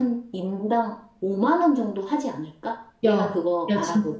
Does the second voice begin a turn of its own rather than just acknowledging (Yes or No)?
Yes